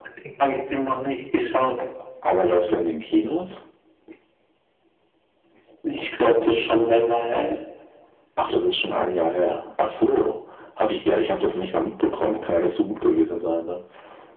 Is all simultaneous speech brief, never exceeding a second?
Yes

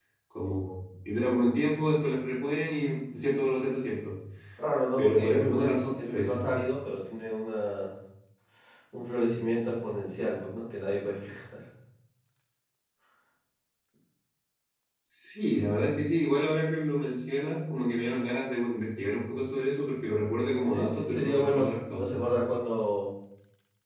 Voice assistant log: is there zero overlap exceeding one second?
No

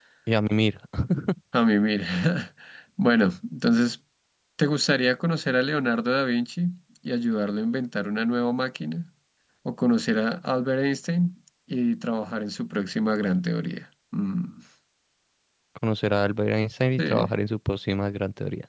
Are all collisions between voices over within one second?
Yes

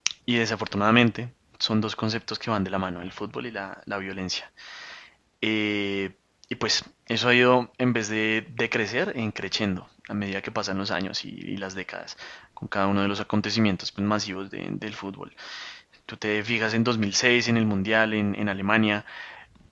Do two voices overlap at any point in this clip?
No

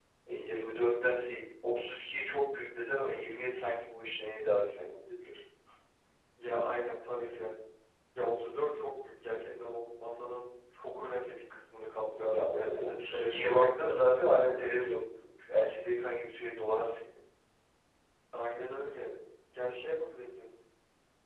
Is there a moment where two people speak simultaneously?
Yes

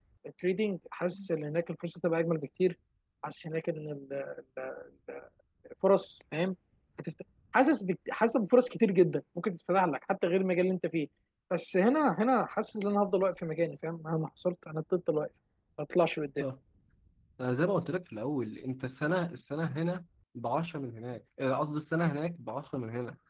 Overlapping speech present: No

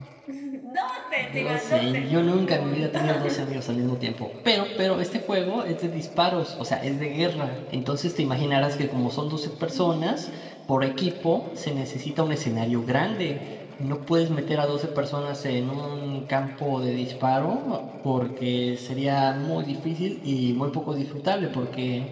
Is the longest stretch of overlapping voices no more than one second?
No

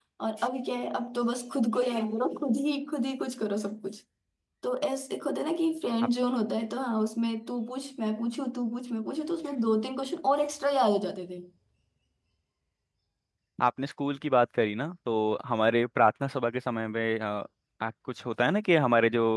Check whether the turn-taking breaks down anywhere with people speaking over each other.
No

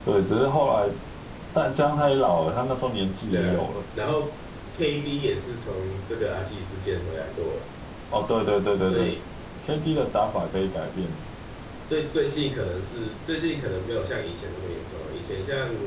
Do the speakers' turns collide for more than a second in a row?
No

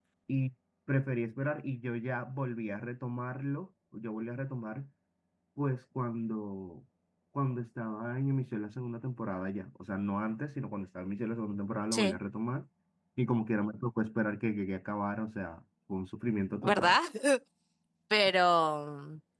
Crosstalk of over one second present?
No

